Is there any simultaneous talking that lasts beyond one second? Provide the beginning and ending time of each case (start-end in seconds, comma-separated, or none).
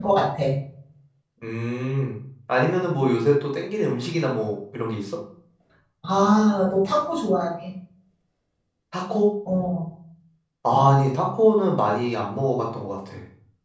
none